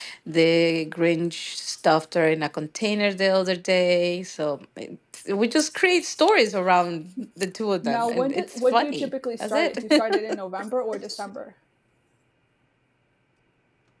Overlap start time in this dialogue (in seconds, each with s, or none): 7.8 s